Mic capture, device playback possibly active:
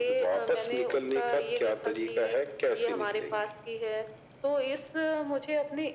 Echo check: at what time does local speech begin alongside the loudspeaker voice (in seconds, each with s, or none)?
none